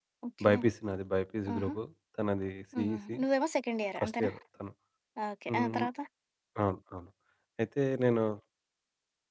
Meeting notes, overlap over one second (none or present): none